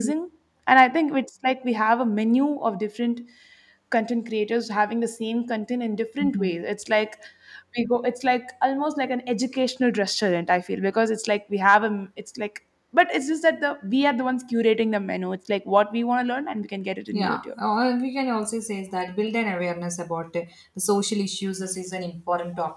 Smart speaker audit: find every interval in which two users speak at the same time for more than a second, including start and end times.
none

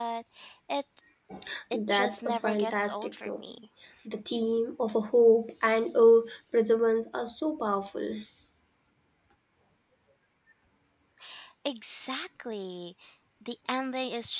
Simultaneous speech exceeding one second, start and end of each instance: 1.9-3.4

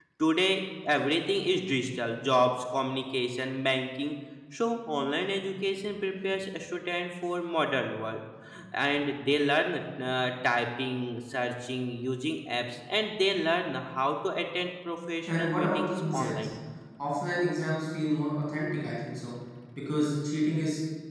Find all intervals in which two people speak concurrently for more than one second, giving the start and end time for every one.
15.3-16.5

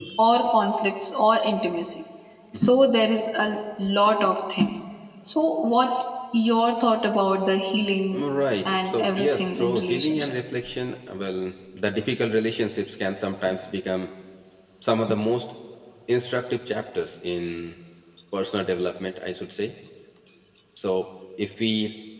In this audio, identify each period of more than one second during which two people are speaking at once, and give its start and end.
8.7-10.4

